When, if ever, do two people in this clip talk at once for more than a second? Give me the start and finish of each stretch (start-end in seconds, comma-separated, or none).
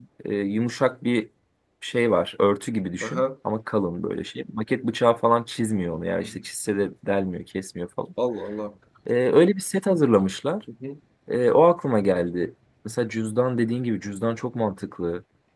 none